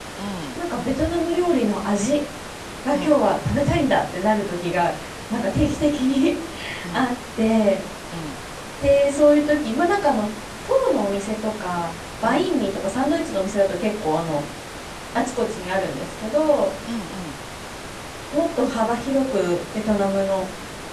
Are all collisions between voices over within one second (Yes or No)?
Yes